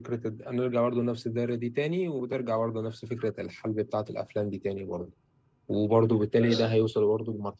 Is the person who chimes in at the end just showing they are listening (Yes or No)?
Yes